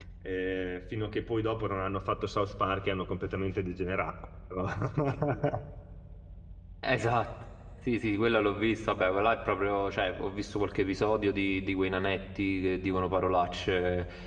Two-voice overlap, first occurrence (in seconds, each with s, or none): none